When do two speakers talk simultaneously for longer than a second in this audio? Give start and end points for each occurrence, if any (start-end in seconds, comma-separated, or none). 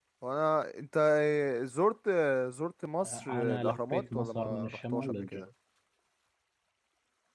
3.0-5.5